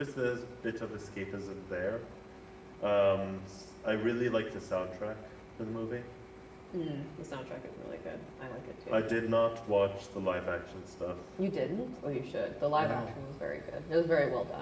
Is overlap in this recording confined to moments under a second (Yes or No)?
Yes